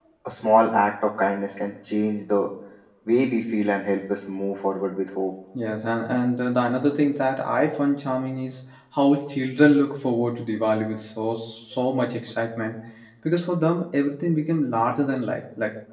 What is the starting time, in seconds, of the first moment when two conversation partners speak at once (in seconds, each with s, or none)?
none